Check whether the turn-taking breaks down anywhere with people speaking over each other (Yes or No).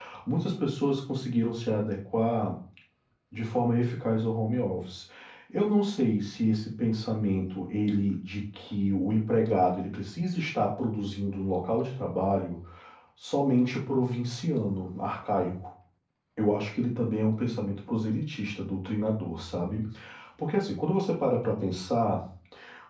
No